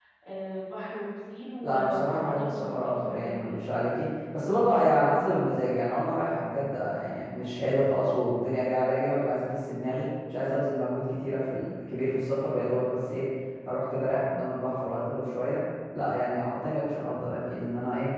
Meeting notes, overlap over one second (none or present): present